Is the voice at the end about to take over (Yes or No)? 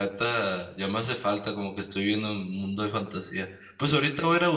No